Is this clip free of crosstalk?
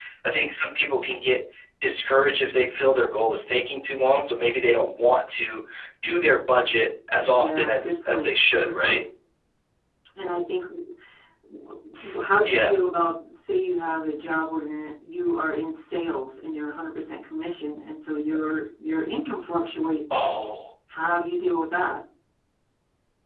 No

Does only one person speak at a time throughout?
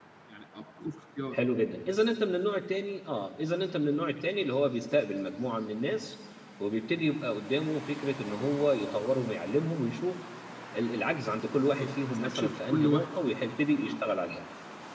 No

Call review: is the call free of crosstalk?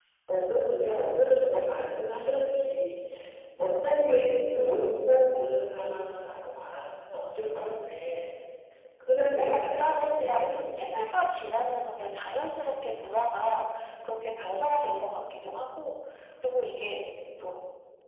No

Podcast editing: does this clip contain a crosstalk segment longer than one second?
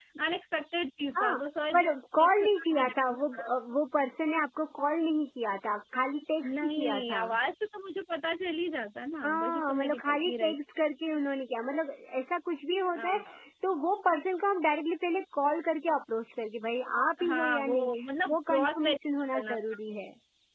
Yes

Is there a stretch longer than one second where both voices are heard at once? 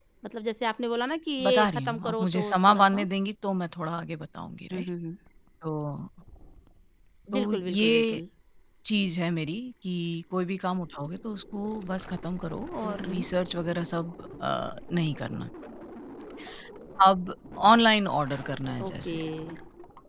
Yes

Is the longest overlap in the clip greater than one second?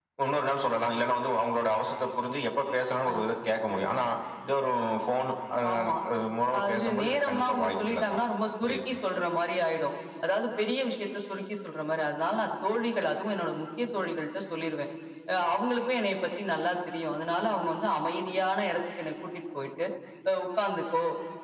Yes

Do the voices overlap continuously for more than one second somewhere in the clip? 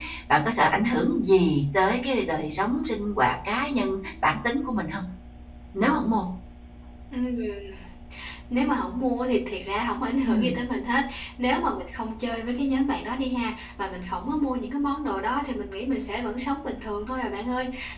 No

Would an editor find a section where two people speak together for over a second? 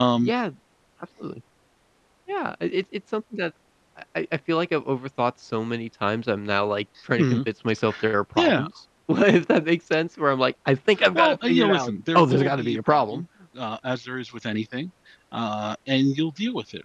Yes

